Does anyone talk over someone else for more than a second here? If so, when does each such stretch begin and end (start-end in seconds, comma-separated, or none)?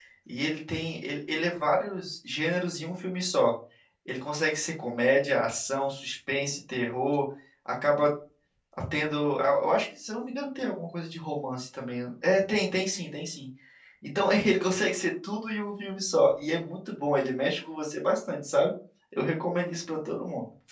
none